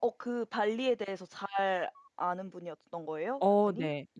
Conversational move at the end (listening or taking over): taking over